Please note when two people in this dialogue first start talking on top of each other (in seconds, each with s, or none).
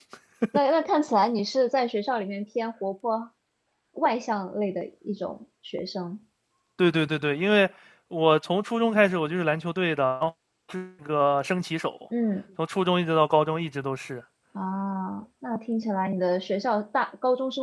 none